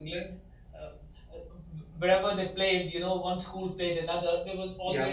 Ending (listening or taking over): listening